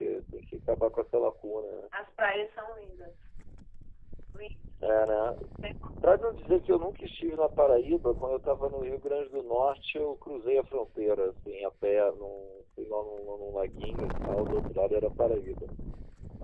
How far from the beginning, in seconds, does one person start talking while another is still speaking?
none

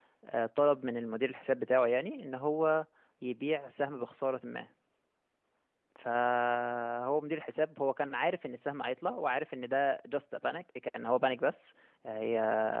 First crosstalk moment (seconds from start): none

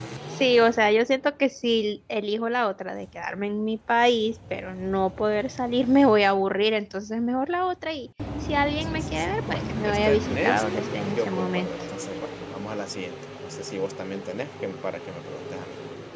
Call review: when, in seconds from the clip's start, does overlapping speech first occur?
8.9 s

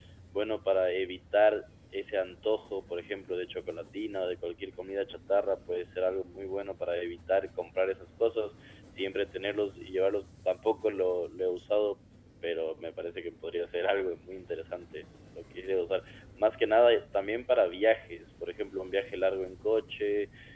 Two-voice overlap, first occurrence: none

